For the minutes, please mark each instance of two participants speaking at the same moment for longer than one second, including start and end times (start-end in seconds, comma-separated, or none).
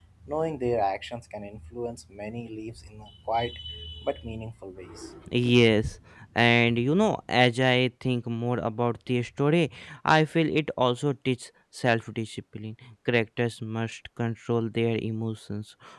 none